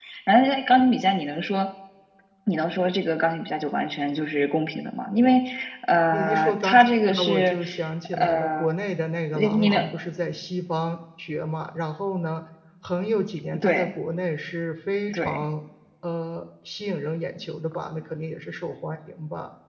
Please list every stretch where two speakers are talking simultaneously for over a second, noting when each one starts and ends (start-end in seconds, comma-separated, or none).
6.1-7.6